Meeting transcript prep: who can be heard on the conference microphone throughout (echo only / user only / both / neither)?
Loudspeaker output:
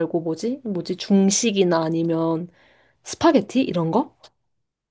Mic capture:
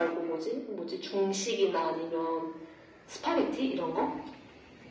echo only